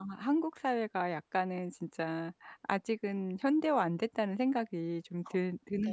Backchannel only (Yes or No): No